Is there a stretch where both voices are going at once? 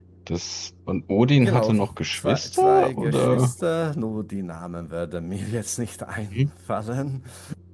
Yes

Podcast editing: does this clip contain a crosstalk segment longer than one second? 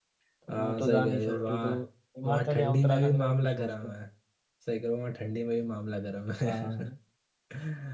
Yes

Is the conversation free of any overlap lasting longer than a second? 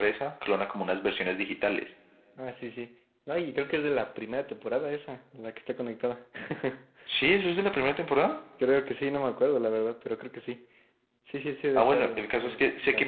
No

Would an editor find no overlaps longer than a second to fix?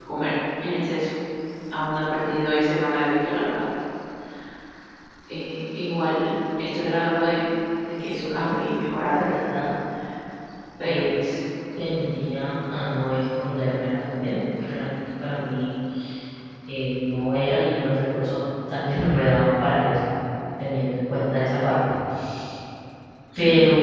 No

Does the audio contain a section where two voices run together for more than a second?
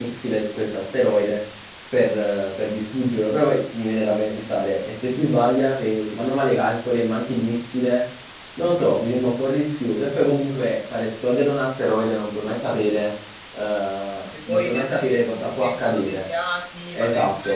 Yes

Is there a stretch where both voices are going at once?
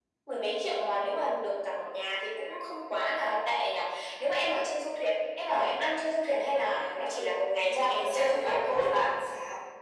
Yes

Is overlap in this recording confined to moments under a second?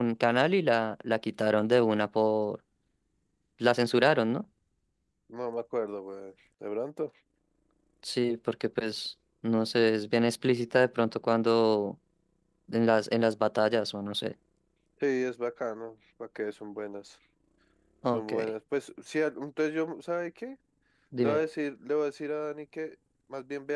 Yes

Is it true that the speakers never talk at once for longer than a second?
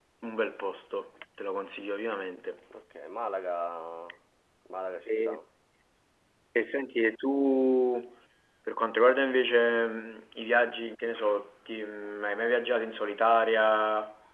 Yes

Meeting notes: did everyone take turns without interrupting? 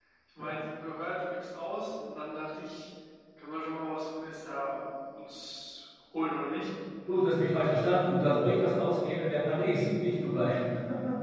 Yes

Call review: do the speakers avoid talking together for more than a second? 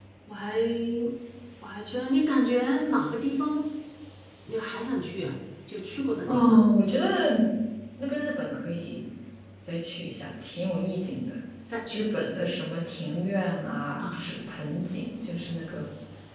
Yes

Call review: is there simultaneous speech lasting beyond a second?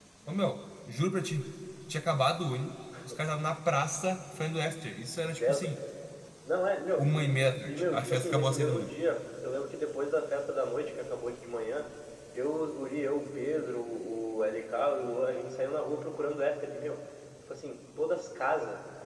Yes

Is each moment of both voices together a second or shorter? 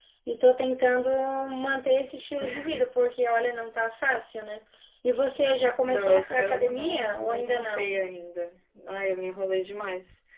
No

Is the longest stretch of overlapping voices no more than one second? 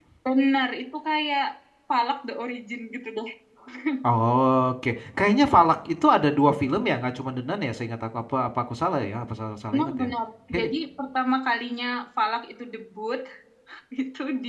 Yes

